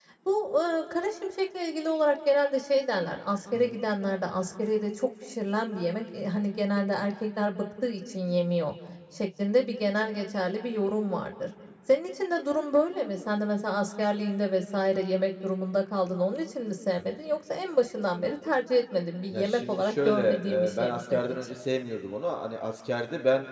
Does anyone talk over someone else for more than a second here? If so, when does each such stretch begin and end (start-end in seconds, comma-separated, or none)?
19.3-21.5